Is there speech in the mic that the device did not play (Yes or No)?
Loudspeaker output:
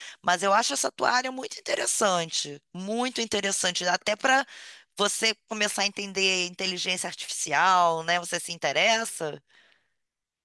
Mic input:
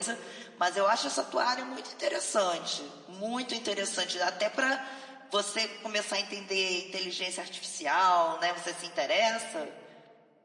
No